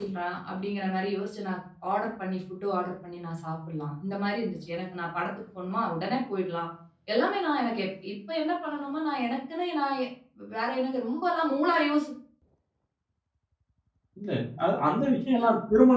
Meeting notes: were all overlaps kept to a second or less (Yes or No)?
Yes